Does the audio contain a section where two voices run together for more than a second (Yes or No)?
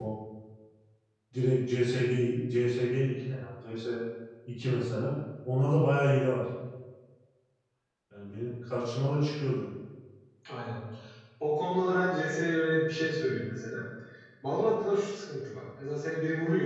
No